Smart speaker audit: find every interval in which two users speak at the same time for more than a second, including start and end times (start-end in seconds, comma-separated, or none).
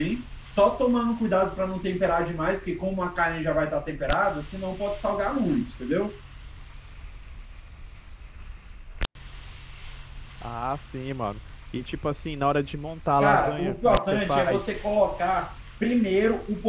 13.2-14.6